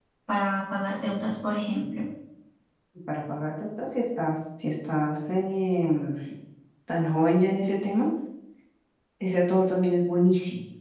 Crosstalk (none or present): none